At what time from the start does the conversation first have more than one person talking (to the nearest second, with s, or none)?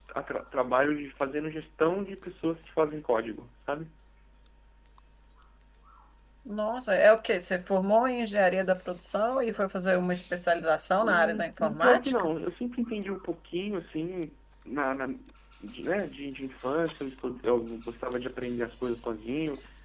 11 s